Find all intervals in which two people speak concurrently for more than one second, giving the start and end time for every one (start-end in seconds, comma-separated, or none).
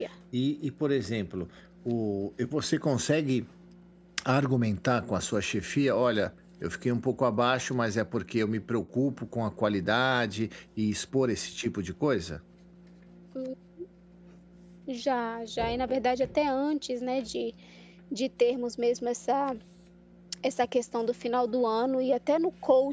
none